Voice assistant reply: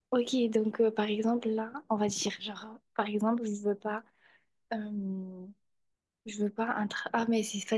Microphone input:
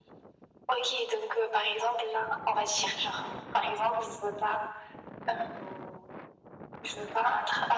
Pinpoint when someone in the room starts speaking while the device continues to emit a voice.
none

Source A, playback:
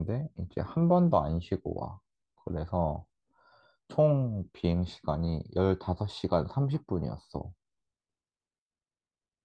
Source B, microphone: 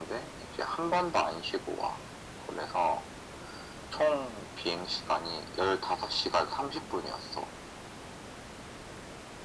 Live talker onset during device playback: none

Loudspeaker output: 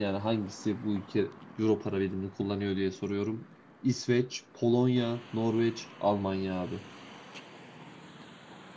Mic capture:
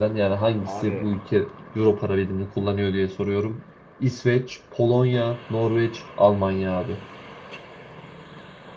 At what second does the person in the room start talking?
0.6 s

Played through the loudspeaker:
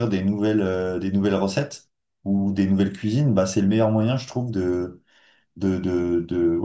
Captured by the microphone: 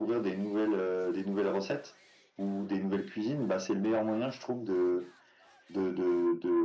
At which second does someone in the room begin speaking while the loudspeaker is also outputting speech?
none

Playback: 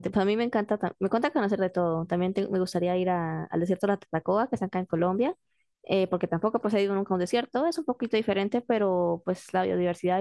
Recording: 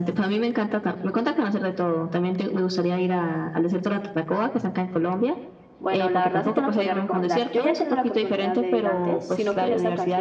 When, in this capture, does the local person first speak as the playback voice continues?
5.8 s

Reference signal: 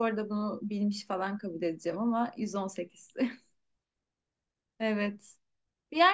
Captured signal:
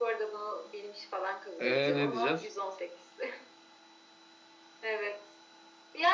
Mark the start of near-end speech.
1.6 s

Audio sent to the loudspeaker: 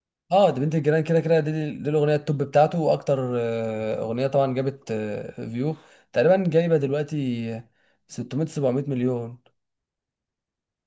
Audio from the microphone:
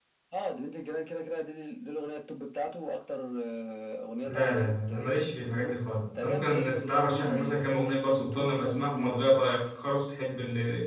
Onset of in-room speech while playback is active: 4.3 s

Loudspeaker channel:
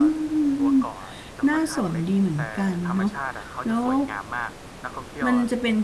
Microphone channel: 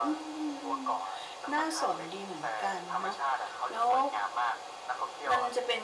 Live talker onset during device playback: none

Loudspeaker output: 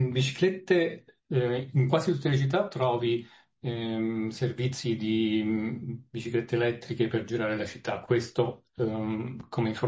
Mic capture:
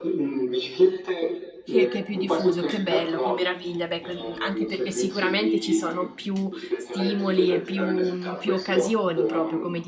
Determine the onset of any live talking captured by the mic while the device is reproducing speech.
1.6 s

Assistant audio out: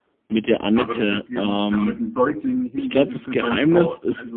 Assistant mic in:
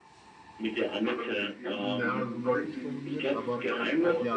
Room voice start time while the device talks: 1.8 s

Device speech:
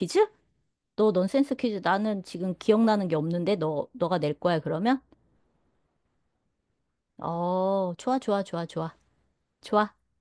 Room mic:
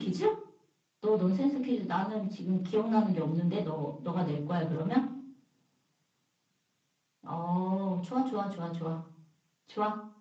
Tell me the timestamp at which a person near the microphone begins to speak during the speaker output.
none

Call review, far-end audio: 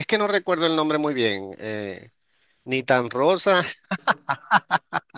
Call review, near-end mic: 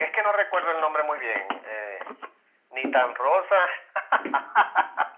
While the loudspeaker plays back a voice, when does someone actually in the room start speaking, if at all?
none

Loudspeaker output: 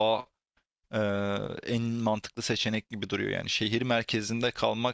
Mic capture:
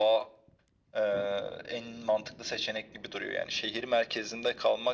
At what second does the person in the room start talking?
none

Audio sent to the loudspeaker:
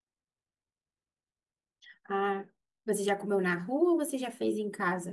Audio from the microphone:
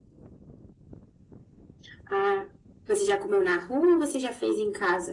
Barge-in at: none

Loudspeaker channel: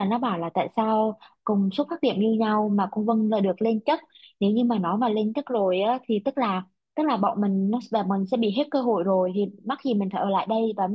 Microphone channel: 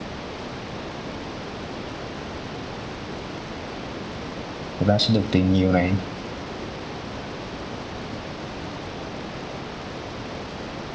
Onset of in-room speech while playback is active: 4.8 s

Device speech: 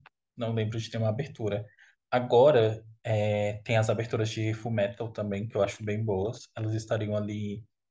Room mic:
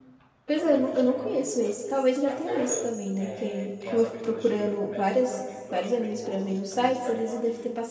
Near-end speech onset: 0.4 s

